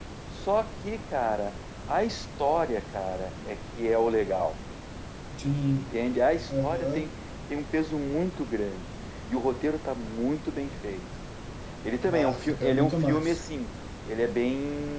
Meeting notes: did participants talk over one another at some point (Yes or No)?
Yes